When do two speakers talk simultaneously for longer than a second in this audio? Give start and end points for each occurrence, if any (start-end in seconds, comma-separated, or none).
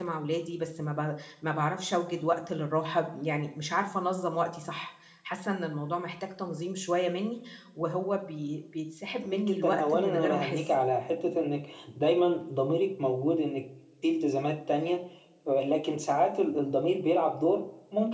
9.2-10.6